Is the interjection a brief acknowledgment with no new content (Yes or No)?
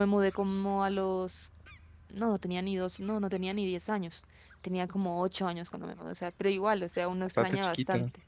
Yes